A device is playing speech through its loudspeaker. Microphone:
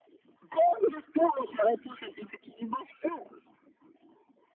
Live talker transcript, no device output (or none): none